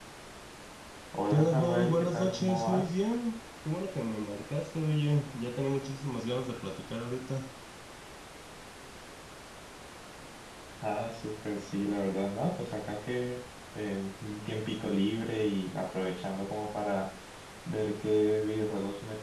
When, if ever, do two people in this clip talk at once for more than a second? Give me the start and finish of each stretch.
1.3-2.9

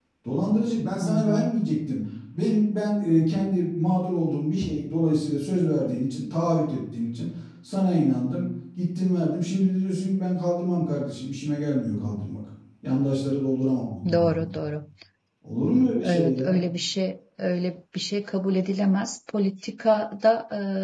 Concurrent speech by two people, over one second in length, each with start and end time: none

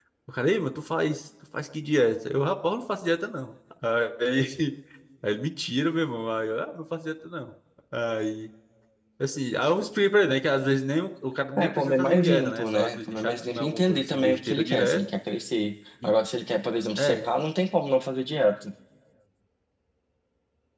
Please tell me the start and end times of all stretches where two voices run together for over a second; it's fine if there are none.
11.6-15.0

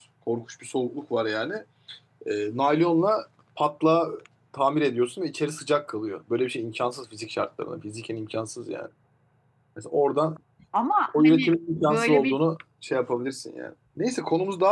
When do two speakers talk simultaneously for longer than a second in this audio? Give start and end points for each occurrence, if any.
11.1-12.4

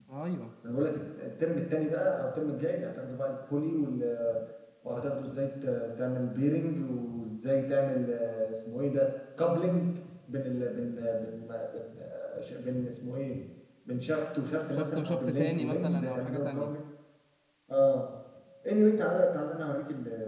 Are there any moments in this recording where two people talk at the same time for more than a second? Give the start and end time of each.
14.7-16.7

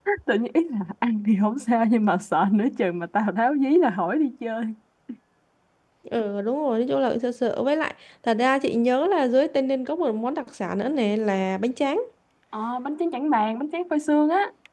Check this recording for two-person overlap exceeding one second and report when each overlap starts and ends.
none

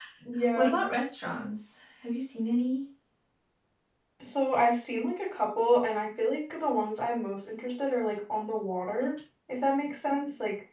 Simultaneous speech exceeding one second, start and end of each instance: none

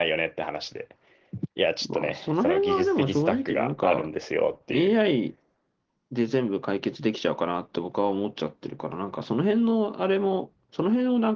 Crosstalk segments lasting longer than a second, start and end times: 1.8-4.1

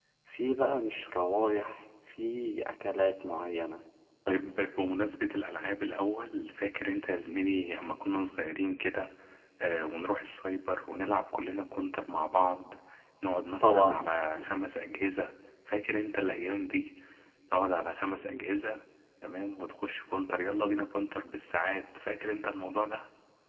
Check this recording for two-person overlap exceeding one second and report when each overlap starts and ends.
none

